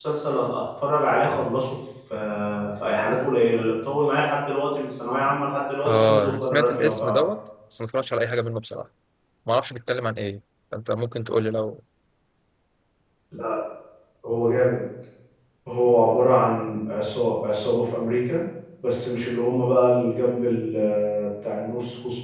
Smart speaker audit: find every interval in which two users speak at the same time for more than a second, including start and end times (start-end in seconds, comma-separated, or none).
5.8-7.2